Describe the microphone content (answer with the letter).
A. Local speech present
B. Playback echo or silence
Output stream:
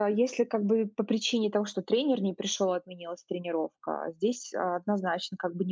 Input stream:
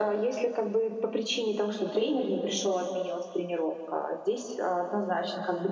B